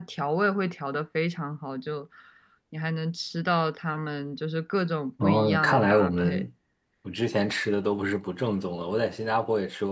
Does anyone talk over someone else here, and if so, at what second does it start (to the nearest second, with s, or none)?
5 s